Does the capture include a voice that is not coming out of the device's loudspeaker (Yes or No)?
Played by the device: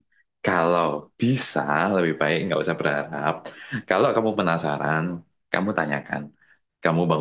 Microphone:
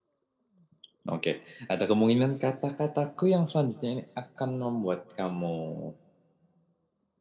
Yes